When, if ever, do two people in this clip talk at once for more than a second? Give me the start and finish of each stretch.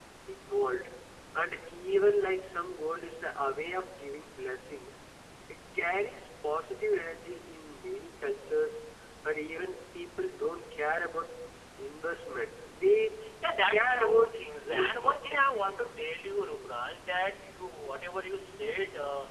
13.7-15.8

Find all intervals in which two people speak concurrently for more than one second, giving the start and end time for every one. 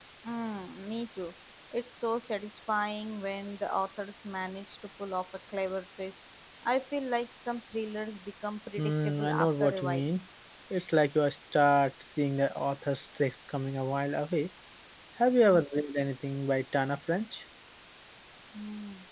8.8-10.1

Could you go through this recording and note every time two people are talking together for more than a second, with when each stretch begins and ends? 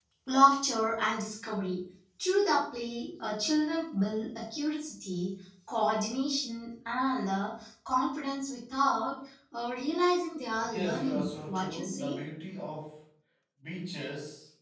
10.7-12.2

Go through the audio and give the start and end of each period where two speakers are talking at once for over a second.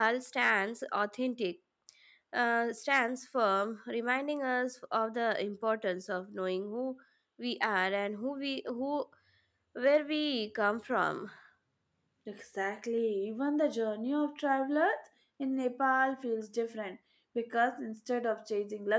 none

